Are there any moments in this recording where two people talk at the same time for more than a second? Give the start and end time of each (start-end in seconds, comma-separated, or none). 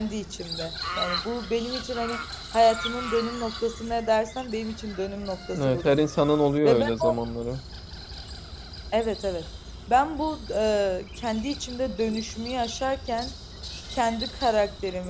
none